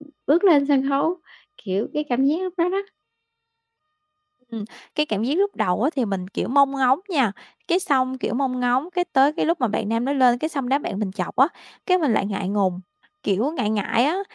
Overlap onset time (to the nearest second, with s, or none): none